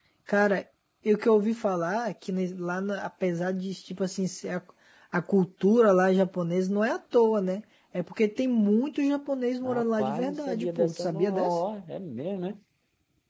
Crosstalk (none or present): present